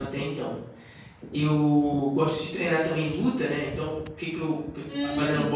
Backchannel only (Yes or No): Yes